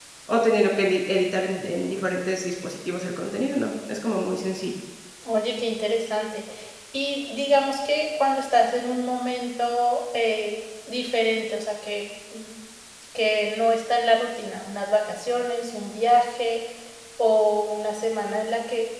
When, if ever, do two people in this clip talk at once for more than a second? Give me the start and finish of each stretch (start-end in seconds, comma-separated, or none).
none